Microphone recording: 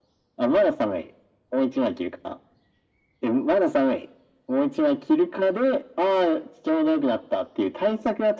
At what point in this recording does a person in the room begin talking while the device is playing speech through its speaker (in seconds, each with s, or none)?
none